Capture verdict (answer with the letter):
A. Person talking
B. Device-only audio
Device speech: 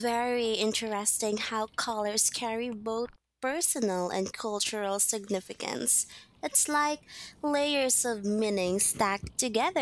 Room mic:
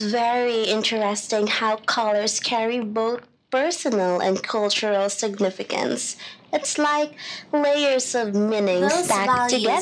A